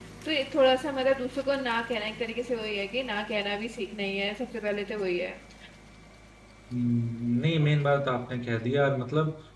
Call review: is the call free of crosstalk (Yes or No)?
Yes